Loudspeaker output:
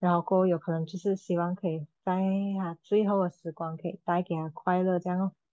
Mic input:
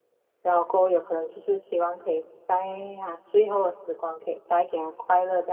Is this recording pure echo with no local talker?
Yes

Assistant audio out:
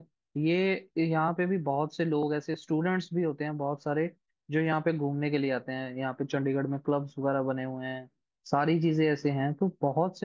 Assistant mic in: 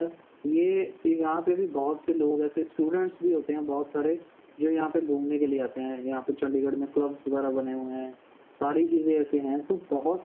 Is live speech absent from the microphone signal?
Yes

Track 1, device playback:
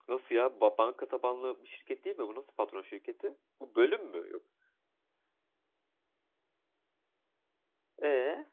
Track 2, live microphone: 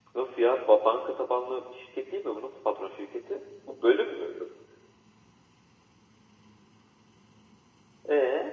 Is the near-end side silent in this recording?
Yes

